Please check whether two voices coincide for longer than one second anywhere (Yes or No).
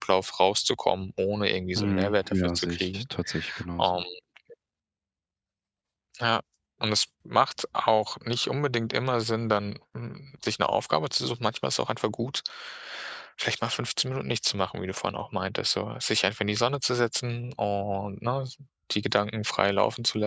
Yes